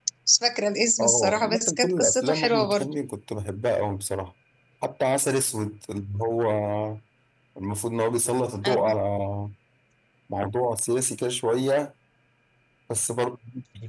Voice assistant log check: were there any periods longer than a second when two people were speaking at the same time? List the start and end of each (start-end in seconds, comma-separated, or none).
1.0-3.0